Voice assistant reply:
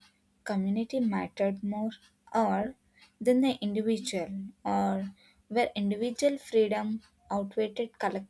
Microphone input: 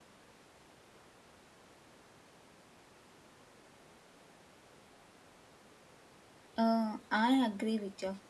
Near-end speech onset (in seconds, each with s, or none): 6.6 s